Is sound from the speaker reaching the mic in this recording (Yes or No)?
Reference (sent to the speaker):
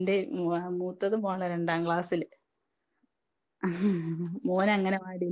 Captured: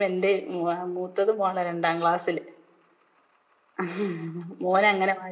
Yes